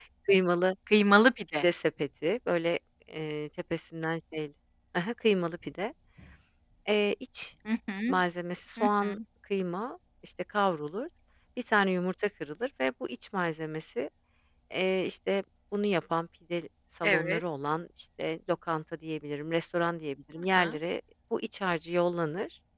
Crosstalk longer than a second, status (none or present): none